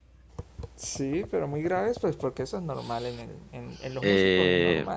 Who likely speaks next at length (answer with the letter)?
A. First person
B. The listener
B